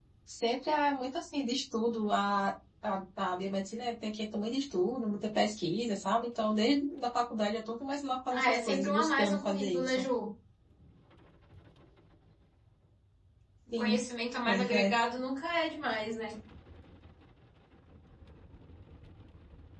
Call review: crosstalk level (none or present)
present